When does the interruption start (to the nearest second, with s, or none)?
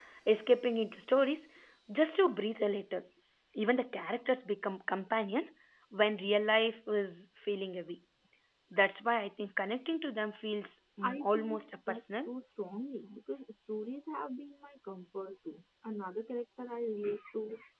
11 s